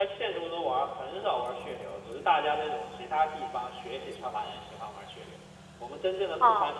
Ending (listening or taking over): listening